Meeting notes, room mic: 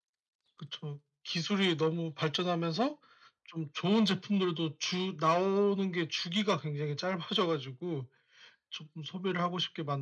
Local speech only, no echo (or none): none